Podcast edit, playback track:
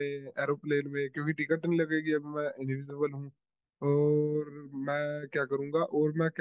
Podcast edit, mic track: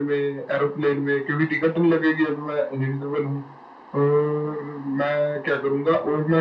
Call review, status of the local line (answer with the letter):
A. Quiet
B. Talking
A